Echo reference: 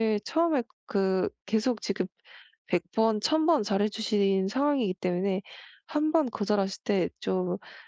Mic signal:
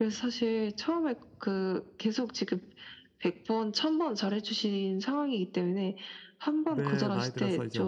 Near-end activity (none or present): present